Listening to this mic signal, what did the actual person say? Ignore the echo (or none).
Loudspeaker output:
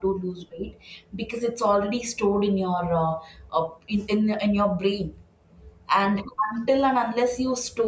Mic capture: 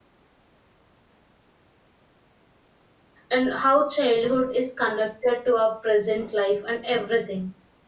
and how childhood is connected to our present life and everything